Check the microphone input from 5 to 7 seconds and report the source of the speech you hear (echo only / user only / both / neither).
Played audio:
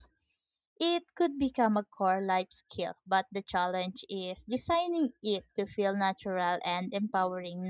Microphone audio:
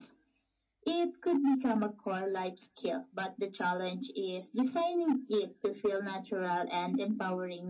echo only